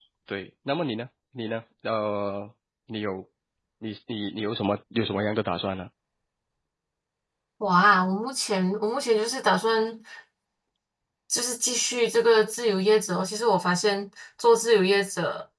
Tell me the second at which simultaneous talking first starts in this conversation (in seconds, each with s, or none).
none